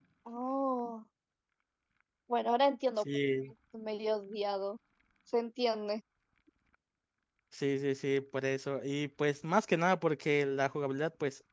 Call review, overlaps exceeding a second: none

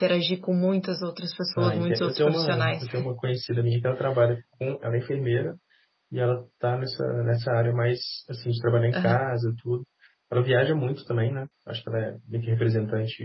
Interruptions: present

